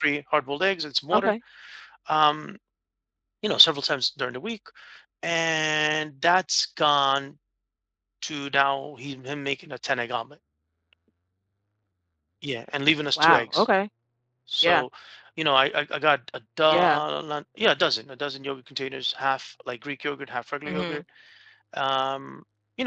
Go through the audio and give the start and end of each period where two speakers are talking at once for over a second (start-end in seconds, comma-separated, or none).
none